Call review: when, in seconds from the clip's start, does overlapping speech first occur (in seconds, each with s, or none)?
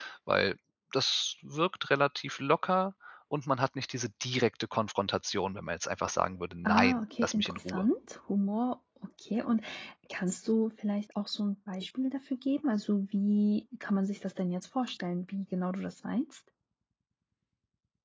6.7 s